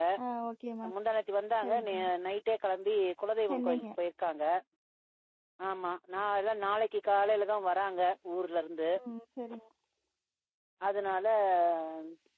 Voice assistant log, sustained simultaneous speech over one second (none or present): none